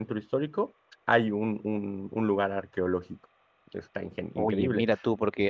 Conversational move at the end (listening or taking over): taking over